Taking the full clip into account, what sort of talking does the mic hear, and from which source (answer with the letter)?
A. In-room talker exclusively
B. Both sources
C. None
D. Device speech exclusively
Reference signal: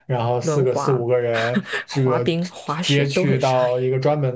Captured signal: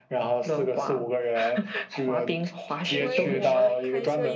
B